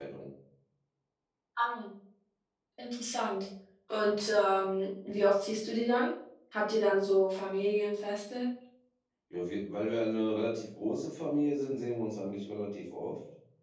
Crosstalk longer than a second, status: none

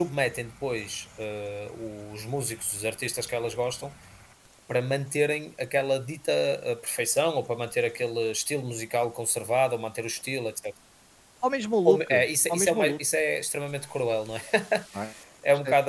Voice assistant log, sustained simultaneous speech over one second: none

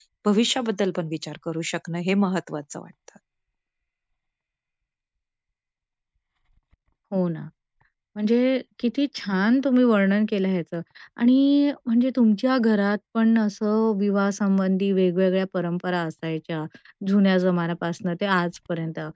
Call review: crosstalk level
none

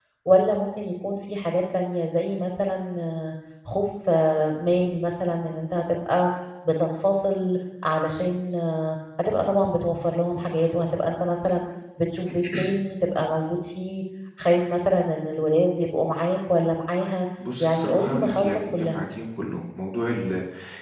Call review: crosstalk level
present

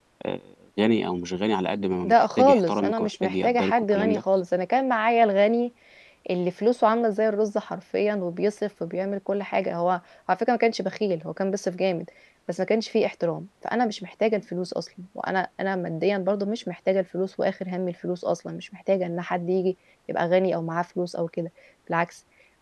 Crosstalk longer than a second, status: present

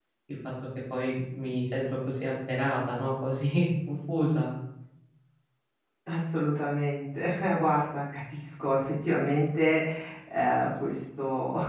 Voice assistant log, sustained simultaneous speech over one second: none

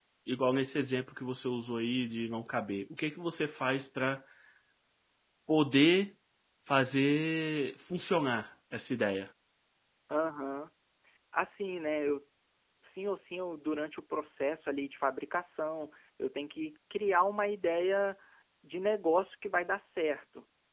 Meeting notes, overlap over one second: none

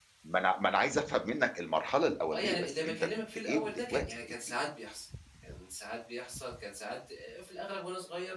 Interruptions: present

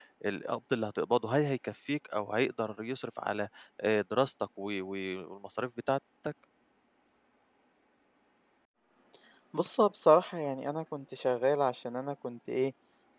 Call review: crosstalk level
none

